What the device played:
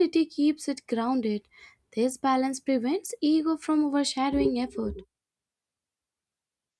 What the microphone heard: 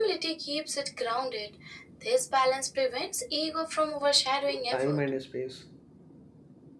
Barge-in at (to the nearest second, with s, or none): 5 s